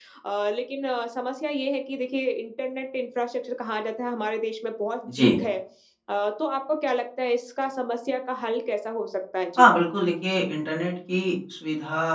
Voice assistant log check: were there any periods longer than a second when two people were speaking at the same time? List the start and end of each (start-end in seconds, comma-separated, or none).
none